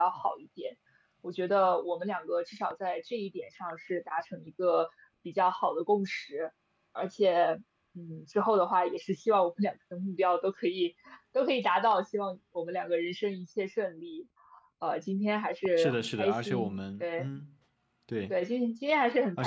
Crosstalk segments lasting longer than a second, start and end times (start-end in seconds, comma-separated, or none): 15.8-17.2